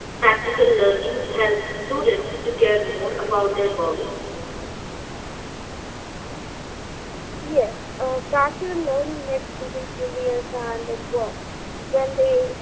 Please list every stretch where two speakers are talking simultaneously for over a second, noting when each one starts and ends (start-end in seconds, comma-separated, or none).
none